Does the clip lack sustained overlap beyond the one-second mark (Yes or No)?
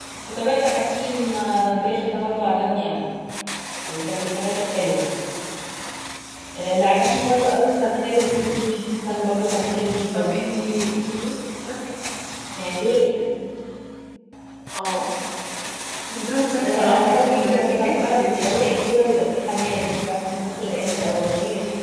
No